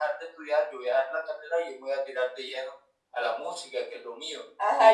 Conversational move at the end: taking over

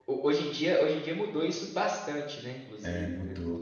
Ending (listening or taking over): taking over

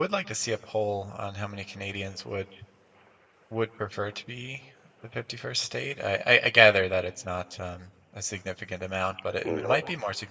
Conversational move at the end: listening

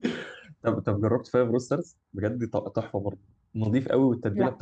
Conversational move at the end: listening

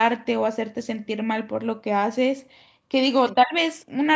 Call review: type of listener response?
listening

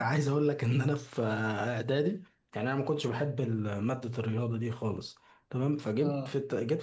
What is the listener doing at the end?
listening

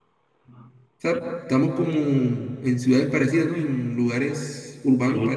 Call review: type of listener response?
taking over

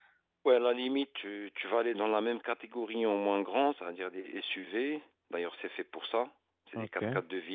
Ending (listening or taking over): listening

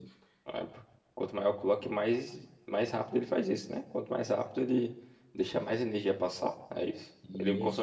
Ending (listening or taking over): taking over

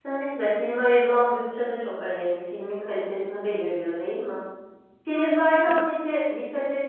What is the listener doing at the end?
listening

